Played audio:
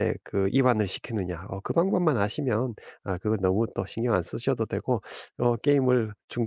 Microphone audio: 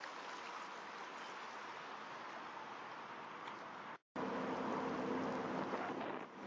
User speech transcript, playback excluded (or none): none